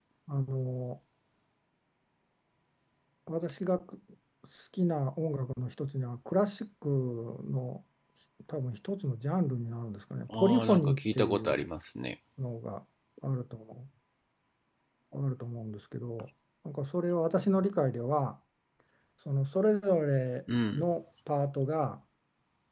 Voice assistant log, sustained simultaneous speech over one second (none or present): present